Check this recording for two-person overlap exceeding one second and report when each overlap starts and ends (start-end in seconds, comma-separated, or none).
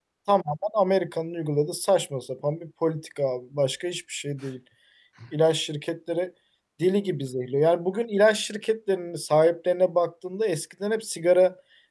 none